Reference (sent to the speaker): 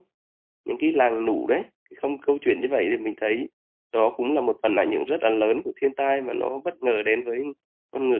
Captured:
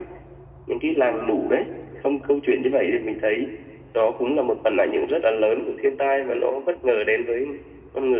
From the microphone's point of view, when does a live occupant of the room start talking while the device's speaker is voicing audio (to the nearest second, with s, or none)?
none